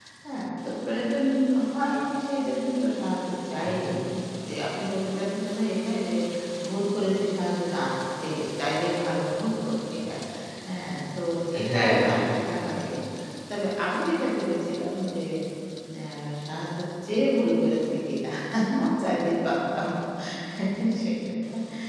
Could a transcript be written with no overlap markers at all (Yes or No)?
No